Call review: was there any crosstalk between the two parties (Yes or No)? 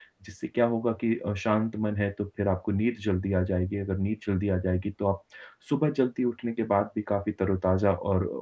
No